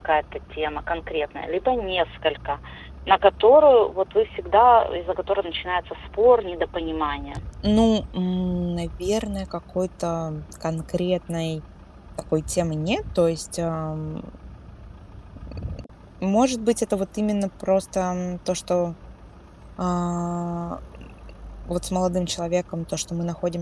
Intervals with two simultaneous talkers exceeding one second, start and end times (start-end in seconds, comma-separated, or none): none